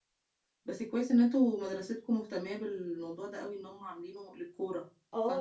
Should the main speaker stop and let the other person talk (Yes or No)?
Yes